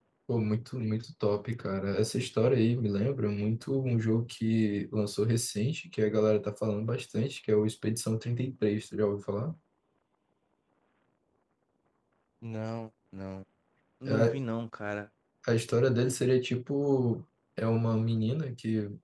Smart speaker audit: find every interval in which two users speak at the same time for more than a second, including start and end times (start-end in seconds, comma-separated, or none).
none